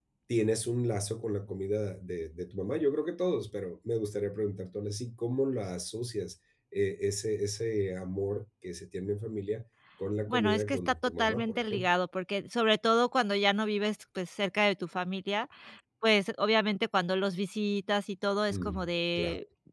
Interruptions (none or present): present